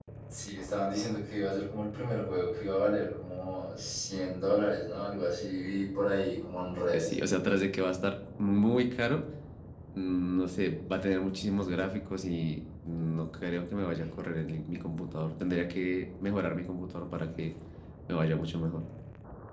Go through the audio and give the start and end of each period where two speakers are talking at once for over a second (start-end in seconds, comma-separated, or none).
none